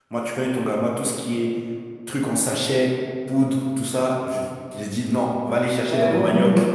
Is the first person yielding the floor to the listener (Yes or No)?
Yes